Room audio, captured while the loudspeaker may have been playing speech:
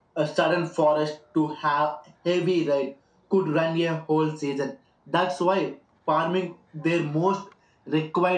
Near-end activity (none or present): none